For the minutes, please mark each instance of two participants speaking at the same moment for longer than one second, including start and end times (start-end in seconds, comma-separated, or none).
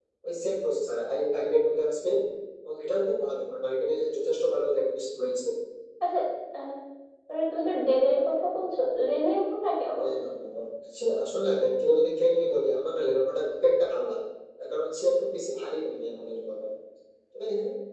none